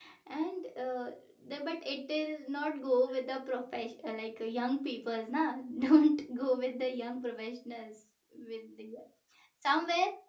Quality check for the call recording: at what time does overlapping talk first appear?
none

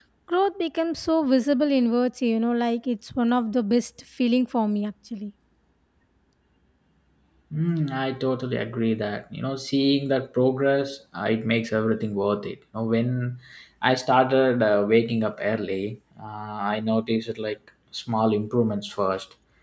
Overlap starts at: none

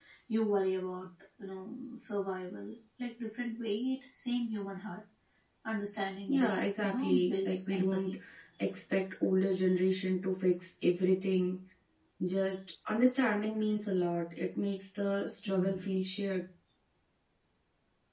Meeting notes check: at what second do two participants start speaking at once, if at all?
6.3 s

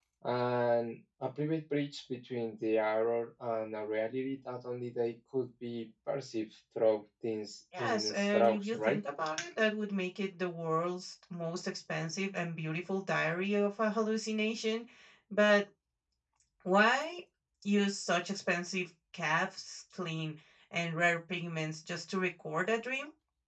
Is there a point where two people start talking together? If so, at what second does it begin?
7.7 s

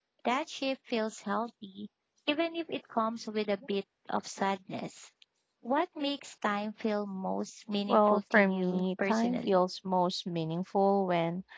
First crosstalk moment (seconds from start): 7.9 s

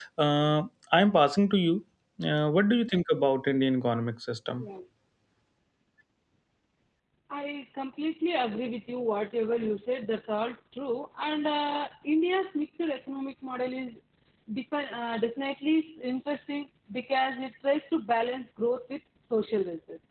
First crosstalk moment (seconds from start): none

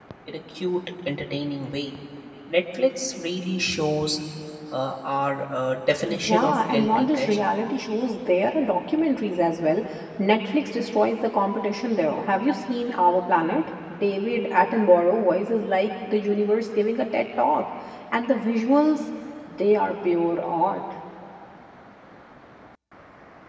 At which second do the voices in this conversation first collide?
6.1 s

